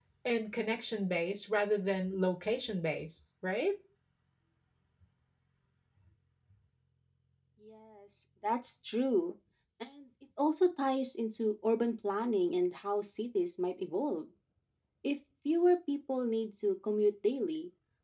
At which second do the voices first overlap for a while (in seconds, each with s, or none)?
none